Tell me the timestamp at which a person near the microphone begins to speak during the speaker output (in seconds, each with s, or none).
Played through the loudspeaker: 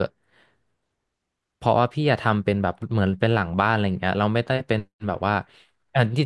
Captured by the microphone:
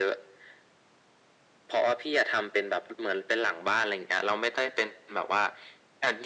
none